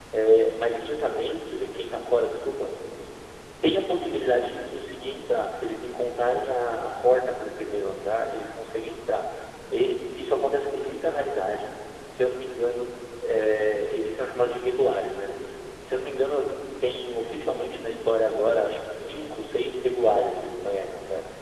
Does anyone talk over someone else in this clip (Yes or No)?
No